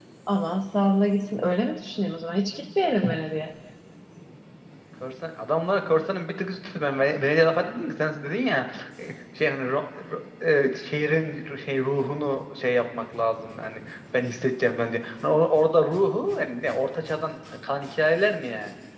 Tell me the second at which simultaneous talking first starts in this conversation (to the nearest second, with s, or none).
none